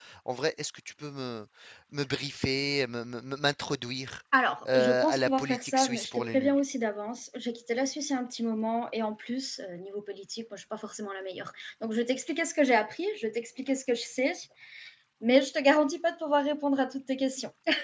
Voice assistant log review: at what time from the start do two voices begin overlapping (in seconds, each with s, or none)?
4.7 s